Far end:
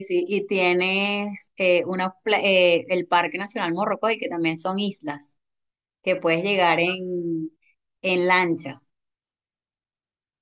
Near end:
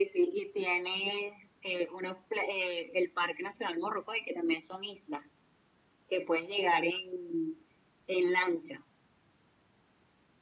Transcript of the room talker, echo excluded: none

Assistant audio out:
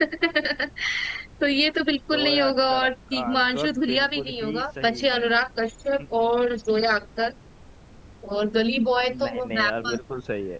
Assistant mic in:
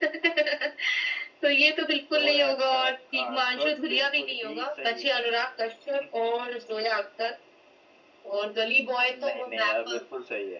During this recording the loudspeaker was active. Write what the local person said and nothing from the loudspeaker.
none

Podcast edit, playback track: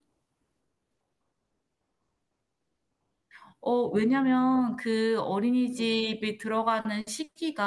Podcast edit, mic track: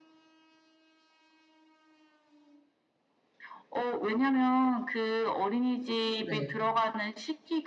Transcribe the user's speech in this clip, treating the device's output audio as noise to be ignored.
네.

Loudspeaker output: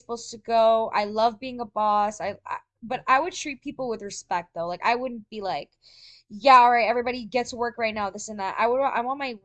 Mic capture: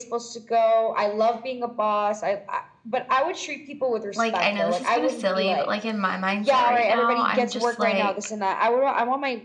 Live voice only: like I know this is kind of silly, but like in my mindset right now, I'm just like

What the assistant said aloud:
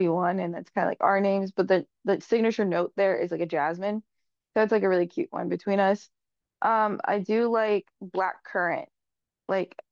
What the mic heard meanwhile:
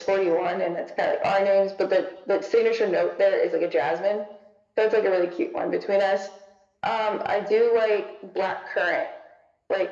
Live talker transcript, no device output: none

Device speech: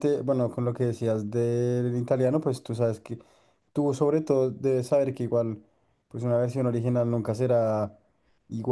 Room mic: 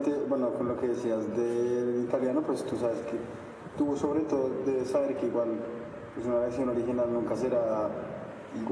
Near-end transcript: none

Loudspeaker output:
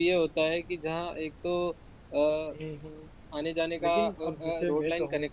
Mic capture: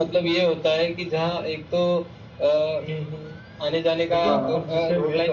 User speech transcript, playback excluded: हाँ

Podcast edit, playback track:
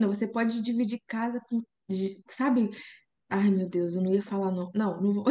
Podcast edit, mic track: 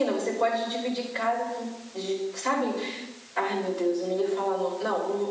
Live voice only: none

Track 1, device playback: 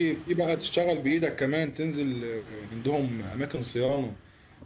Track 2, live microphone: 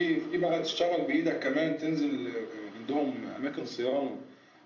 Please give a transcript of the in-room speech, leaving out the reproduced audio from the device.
none

